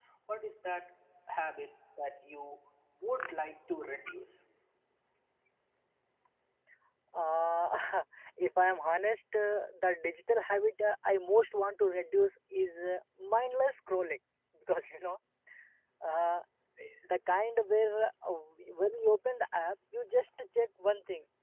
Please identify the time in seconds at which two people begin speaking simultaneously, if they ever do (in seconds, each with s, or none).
none